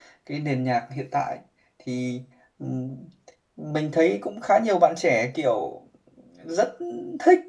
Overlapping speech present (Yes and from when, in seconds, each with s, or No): No